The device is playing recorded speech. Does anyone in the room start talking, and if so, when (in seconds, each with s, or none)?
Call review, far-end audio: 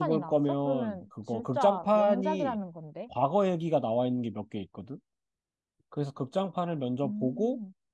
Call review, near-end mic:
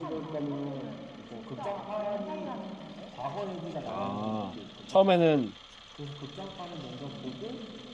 3.9 s